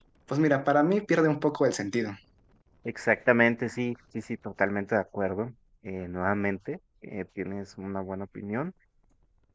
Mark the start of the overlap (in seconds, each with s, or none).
none